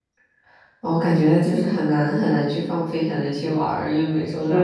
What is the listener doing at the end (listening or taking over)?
taking over